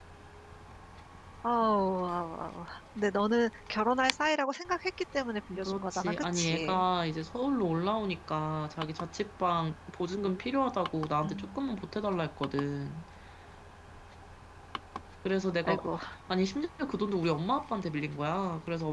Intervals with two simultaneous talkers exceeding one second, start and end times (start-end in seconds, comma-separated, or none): 5.6-6.8